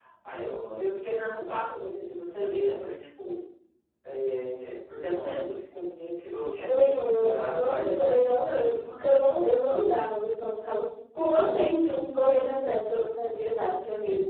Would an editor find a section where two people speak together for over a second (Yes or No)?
Yes